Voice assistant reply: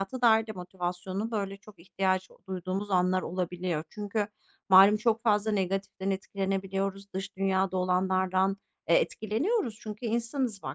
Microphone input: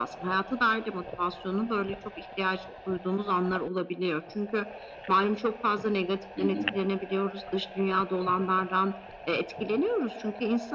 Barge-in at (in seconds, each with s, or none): 6.4 s